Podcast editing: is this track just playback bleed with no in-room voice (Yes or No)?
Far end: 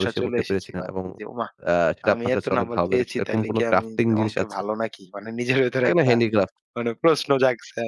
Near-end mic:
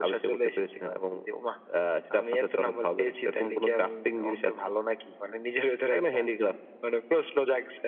Yes